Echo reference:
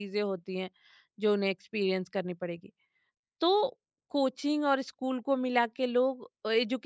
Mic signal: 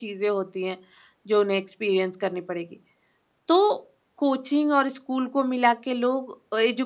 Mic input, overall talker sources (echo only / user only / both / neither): echo only